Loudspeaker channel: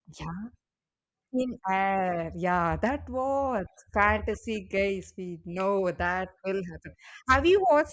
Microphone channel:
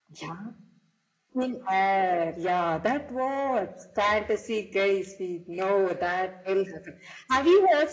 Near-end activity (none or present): none